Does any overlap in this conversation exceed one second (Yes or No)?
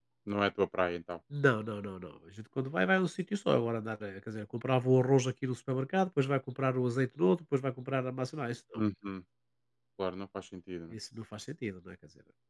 No